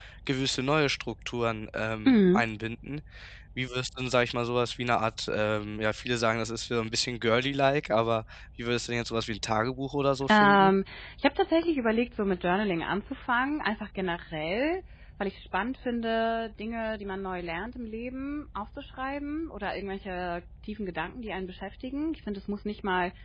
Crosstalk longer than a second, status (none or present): none